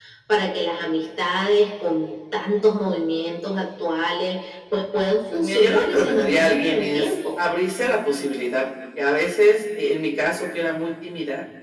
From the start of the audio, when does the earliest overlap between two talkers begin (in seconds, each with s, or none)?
5.3 s